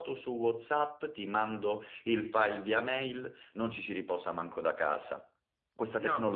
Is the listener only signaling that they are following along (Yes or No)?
Yes